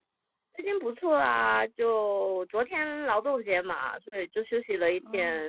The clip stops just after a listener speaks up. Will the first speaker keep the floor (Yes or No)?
No